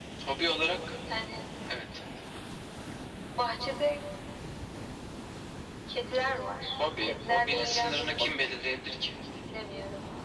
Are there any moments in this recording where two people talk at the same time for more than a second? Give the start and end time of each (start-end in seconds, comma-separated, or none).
7.0-8.6